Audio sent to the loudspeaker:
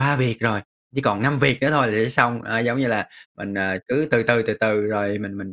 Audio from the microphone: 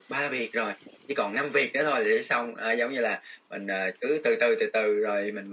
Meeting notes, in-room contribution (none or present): none